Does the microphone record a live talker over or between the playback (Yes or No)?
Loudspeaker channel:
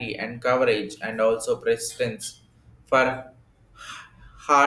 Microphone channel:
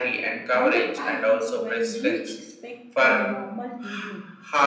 Yes